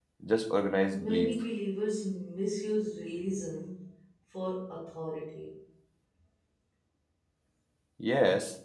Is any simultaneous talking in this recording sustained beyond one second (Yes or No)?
No